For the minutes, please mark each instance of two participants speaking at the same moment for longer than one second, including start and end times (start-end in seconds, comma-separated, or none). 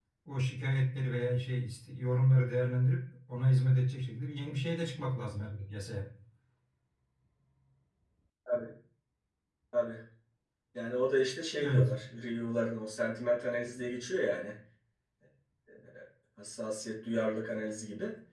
none